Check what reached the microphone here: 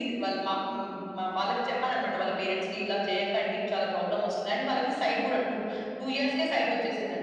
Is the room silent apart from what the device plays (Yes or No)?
Yes